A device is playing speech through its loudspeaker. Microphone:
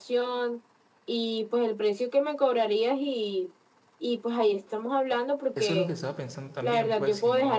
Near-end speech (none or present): present